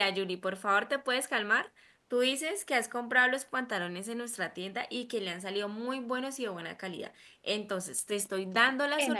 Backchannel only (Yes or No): No